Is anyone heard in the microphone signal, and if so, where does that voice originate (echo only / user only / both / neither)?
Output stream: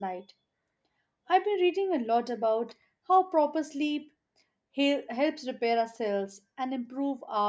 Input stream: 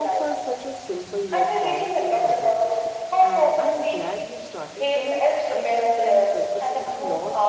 both